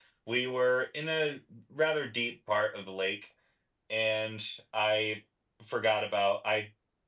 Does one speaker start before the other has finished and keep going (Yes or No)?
No